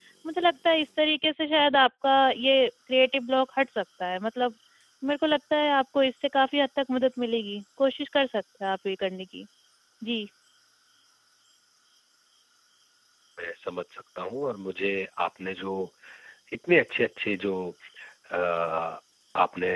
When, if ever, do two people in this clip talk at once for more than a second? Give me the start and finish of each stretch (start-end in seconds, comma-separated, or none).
none